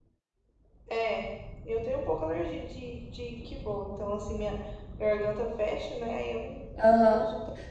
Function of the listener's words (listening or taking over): taking over